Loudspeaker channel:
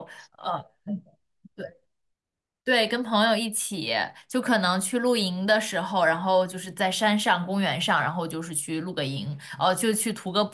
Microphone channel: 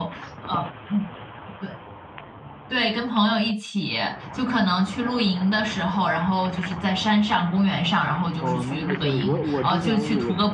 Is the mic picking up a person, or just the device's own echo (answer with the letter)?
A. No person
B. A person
B